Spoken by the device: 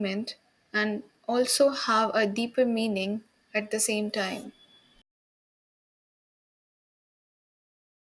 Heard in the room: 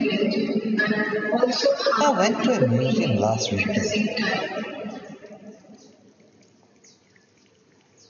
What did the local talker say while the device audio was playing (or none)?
I went to a museum last weekend